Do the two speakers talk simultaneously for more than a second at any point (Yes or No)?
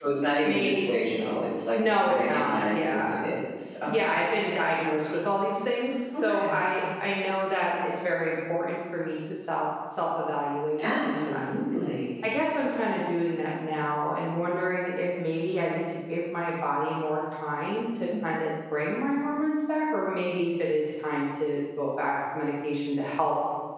Yes